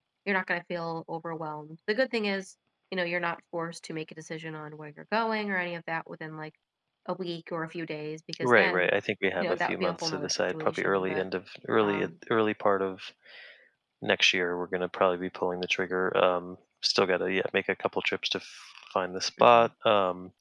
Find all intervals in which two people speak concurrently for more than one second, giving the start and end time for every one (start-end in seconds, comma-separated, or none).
9.4-11.2